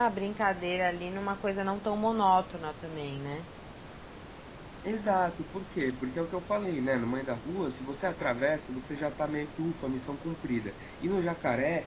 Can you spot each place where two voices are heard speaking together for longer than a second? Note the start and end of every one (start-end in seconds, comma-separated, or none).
none